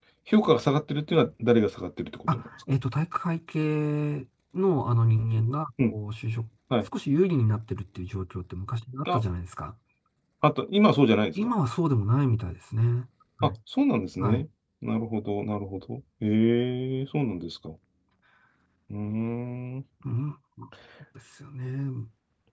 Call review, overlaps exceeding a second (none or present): none